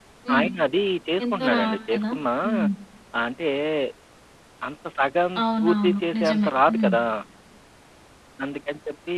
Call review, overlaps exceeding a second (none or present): present